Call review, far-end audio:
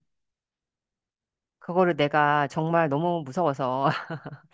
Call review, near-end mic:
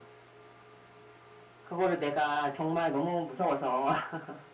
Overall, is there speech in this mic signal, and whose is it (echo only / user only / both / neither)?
echo only